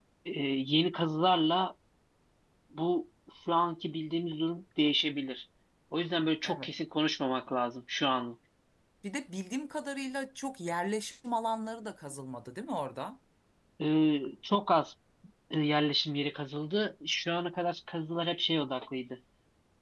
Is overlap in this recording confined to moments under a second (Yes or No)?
Yes